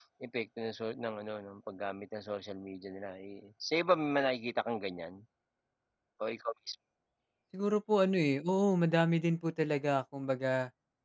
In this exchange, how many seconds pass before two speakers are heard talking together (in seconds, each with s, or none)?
none